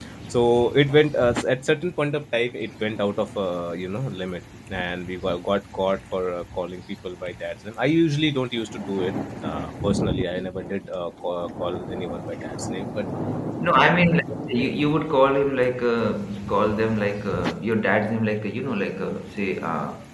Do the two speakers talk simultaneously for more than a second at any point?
No

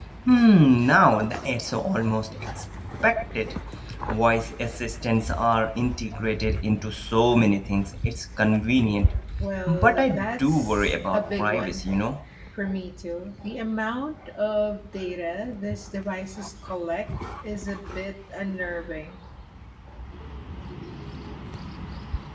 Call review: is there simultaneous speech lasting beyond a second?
Yes, from 9.7 s

